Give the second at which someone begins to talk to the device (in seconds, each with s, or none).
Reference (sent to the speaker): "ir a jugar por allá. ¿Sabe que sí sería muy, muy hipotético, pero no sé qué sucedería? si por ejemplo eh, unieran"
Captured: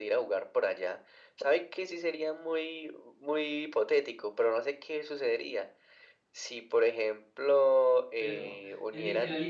8.1 s